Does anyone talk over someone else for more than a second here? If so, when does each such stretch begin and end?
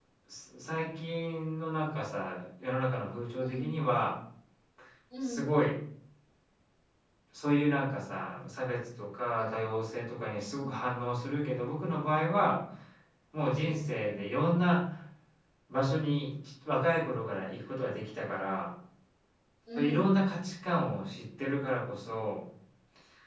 none

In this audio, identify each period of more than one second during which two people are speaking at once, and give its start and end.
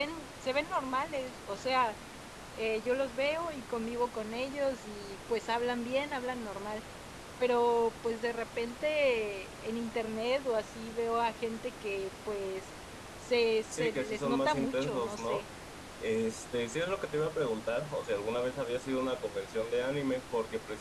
13.7-15.4

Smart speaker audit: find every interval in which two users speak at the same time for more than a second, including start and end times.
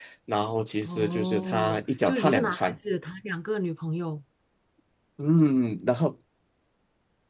0.8-2.8

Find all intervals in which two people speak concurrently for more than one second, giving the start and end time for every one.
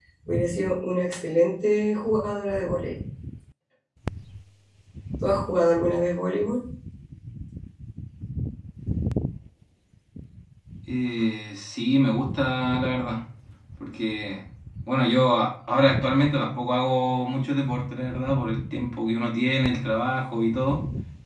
none

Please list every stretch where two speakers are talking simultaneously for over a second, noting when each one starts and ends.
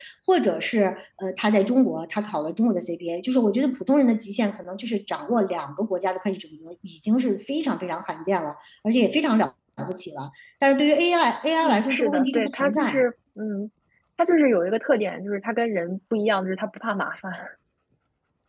11.6-12.9

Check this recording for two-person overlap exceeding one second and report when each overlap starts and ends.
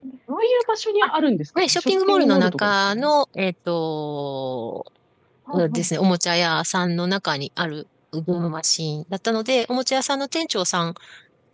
1.7-3.1

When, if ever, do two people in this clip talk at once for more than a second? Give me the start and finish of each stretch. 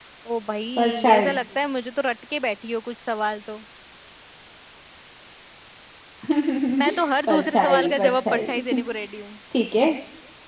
7.3-8.6

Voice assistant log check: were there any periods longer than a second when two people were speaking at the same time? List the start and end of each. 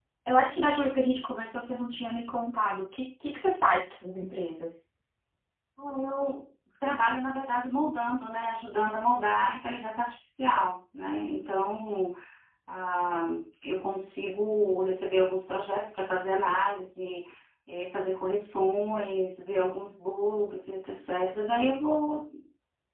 none

